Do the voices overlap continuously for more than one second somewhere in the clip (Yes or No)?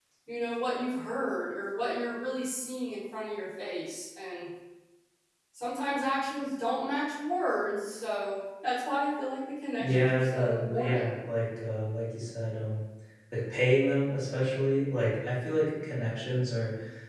Yes